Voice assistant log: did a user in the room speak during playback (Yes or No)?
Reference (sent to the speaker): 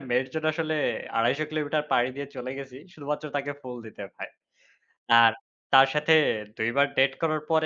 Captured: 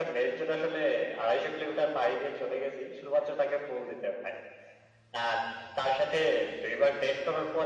No